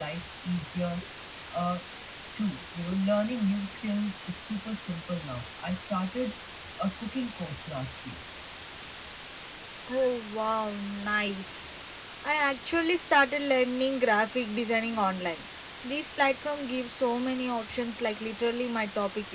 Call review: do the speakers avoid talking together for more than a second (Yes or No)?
Yes